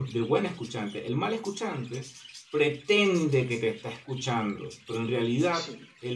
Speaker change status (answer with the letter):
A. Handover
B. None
B